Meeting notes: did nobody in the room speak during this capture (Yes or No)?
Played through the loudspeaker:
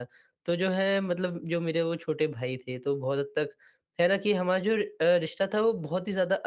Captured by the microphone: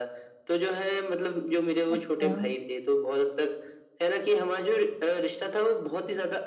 No